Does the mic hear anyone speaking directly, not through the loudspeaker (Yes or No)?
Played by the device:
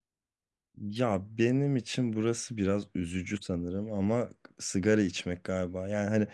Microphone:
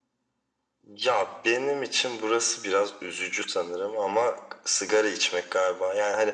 No